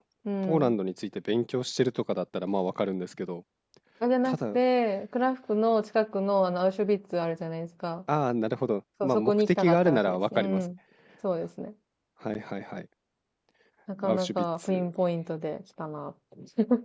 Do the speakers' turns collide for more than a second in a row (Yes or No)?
Yes